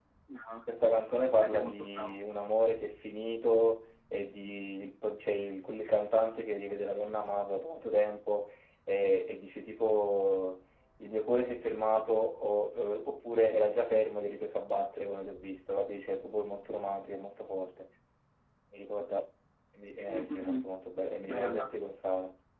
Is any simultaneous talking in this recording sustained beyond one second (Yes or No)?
Yes